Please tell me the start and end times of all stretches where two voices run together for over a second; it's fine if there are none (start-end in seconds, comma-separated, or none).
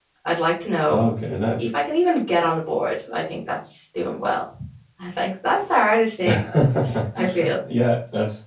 none